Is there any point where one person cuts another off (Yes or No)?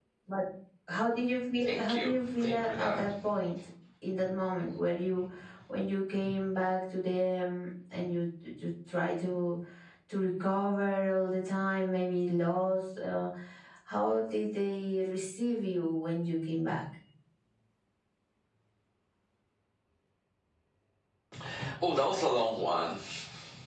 Yes